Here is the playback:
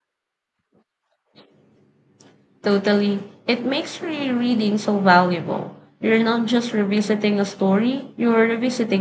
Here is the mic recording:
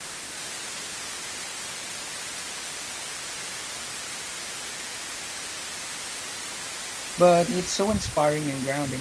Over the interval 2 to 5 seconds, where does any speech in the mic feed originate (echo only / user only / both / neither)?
neither